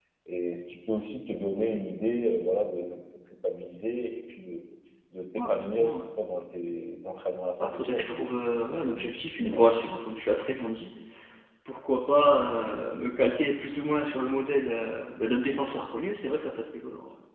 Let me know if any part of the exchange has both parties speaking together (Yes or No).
Yes